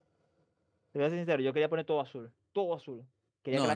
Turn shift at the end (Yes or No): No